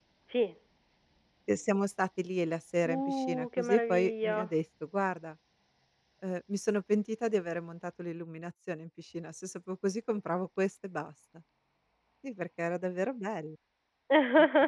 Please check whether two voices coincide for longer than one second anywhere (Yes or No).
Yes